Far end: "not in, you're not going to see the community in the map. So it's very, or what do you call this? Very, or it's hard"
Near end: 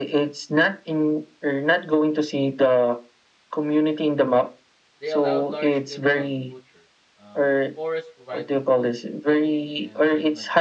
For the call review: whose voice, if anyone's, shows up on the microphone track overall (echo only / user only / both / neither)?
both